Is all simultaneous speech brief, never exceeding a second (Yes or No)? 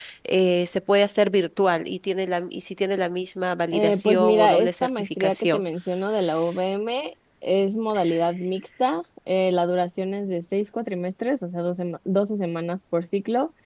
No